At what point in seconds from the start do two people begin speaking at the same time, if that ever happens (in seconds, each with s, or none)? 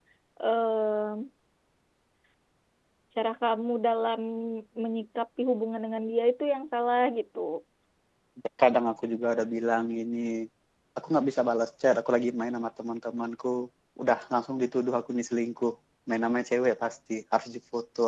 none